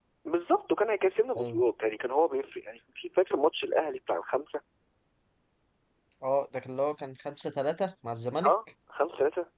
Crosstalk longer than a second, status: none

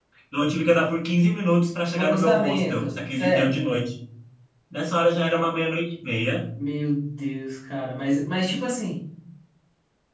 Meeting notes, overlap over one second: present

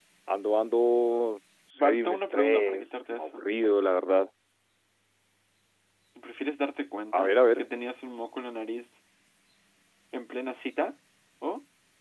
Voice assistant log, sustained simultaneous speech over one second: present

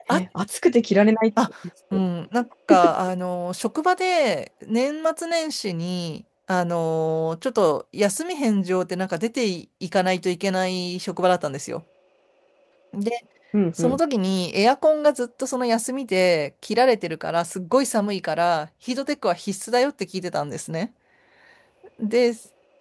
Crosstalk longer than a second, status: none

